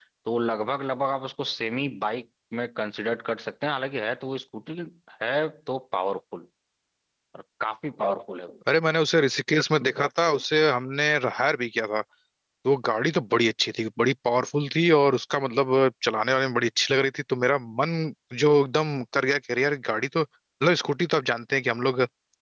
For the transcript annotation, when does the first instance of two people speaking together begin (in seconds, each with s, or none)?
none